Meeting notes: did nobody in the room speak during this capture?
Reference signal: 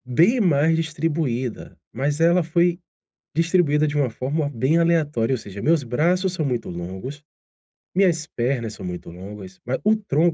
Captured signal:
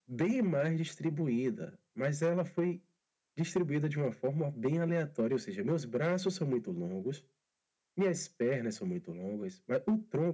Yes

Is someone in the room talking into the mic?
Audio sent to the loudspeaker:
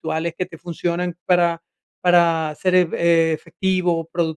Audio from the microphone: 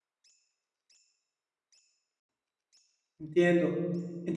Yes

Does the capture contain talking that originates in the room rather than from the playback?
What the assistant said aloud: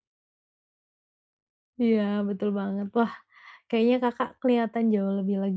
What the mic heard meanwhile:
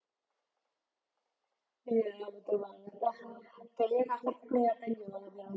No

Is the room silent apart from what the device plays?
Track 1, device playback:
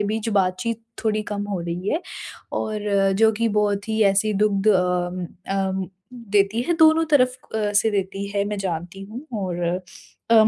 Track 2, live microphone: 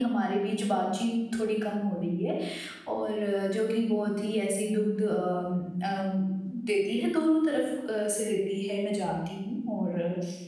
Yes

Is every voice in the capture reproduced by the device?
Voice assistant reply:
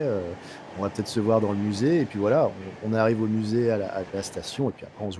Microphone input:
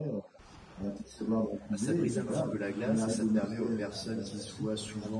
No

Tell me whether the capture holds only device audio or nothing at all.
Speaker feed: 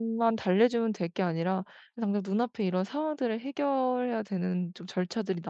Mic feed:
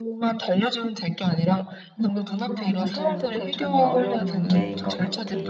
No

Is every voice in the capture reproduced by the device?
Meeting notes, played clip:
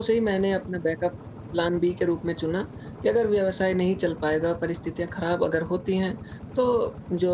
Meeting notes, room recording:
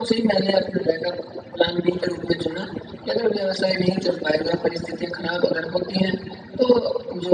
Yes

